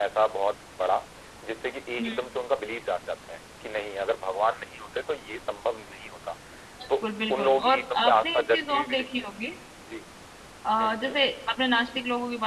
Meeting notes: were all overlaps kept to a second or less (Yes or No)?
No